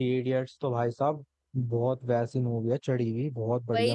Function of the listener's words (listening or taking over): taking over